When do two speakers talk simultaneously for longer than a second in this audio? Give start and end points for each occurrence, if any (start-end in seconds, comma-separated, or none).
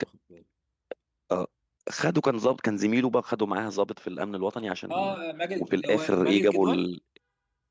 5.6-6.8